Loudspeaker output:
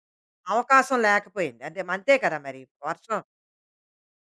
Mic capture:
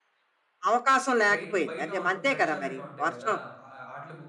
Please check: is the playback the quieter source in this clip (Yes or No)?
No